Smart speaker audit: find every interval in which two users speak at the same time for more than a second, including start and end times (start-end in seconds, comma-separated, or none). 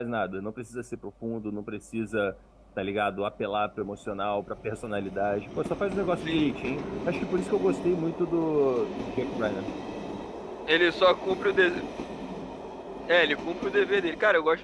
none